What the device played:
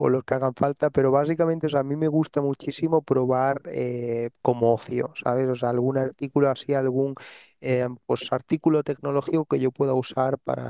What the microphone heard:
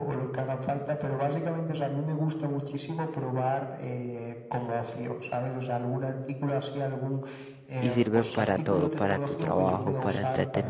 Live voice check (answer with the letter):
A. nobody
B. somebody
B